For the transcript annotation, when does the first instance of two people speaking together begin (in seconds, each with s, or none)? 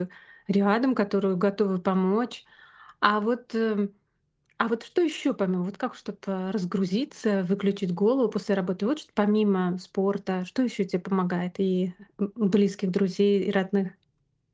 none